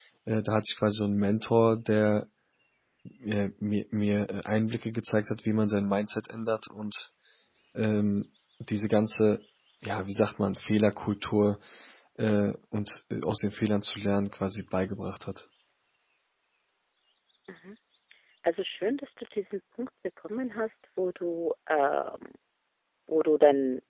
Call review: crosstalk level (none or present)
none